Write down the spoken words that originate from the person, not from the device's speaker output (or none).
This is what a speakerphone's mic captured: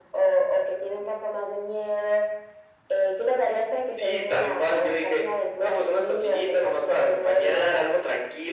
none